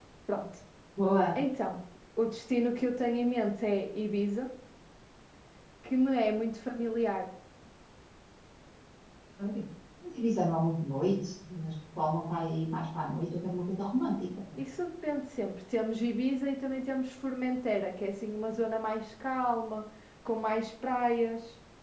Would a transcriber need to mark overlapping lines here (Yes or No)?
No